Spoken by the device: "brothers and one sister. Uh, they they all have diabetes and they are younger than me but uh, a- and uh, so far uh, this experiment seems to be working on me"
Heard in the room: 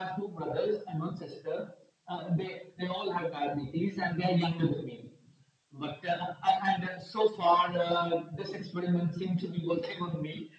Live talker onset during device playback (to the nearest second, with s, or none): none